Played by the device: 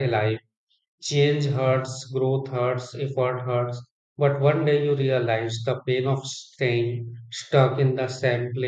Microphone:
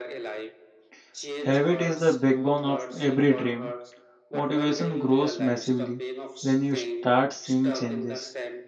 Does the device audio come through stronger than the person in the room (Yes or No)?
No